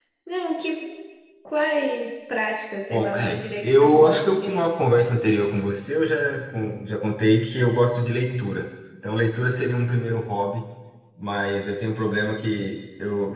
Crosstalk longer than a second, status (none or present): present